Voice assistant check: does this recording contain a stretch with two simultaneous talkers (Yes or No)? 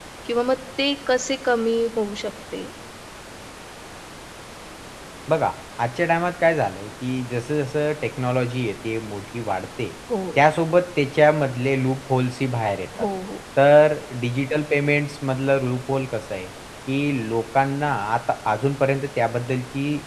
No